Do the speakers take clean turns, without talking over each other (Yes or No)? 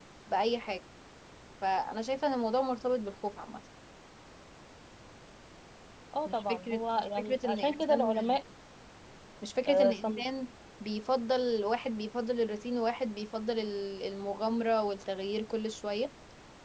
No